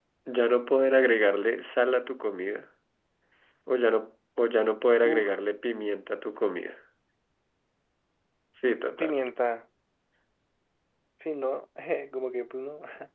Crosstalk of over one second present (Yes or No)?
No